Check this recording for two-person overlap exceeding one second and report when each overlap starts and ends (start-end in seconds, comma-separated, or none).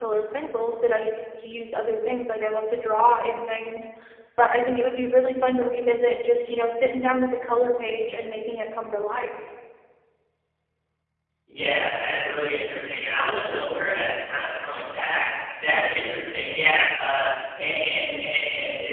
none